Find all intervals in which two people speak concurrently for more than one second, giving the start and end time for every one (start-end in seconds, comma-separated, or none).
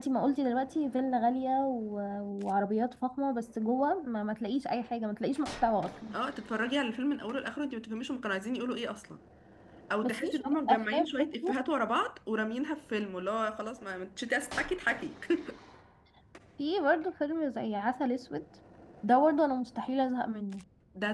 10.0-11.5